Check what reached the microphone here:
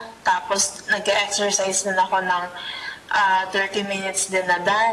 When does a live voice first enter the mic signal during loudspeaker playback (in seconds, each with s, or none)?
none